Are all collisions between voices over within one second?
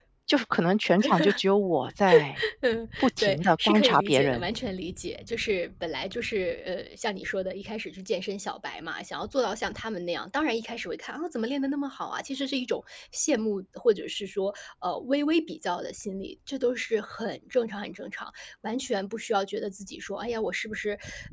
No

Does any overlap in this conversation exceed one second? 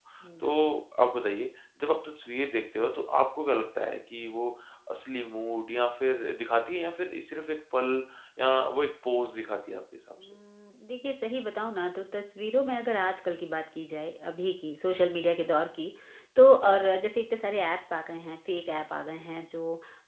No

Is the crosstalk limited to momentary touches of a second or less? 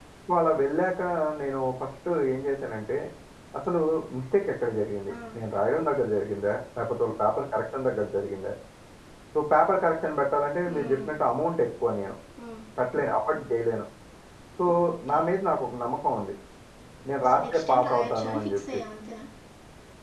No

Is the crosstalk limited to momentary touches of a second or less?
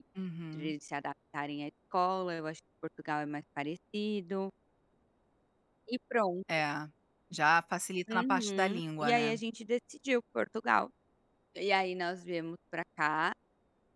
No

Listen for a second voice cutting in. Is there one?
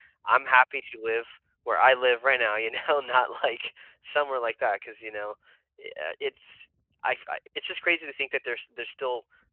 No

